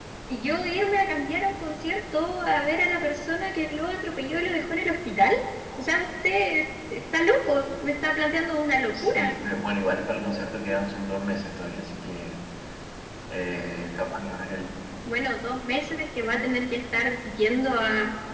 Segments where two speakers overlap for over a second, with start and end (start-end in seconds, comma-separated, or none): none